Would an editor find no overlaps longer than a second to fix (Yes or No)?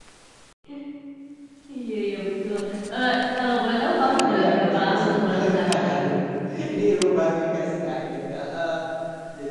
No